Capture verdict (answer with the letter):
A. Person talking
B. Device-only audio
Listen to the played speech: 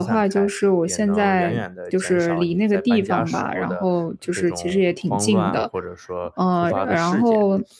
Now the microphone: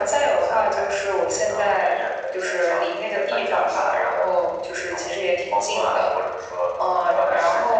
B